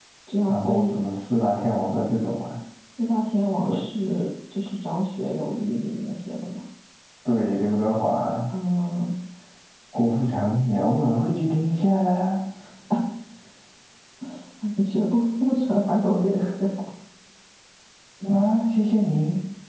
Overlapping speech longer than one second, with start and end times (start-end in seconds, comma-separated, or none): none